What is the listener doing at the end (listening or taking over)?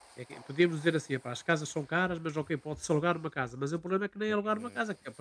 listening